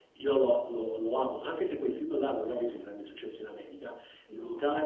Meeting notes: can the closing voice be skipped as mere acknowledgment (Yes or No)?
Yes